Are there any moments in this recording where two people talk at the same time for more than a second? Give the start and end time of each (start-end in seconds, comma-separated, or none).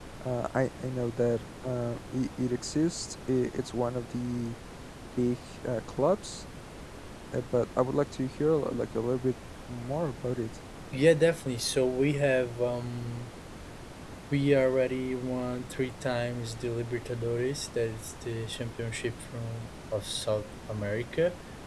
none